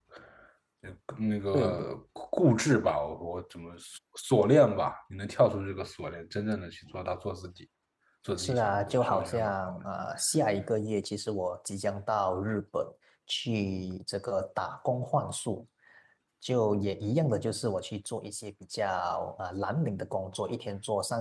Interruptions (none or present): present